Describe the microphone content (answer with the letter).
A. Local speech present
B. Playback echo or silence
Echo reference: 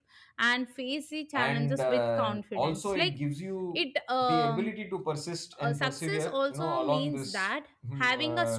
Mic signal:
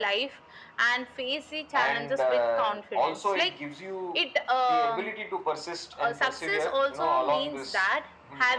B